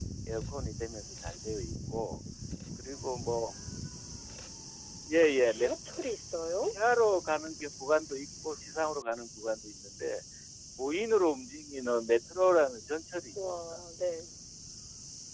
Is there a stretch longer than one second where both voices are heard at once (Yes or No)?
No